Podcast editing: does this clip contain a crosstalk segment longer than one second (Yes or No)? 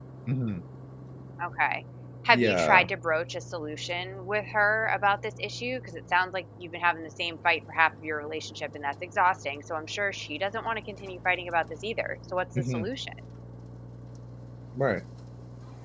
No